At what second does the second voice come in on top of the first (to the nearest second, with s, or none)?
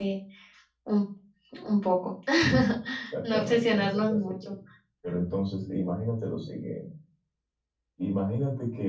3 s